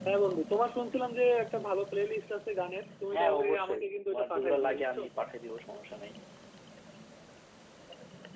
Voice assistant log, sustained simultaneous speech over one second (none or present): present